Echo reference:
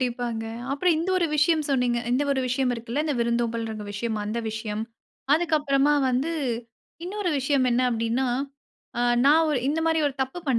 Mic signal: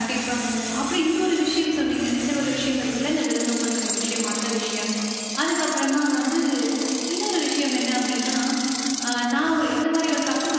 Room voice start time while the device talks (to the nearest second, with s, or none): none